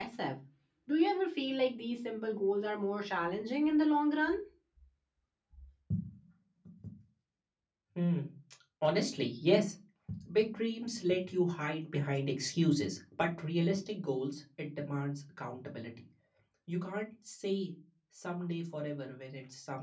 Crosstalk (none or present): none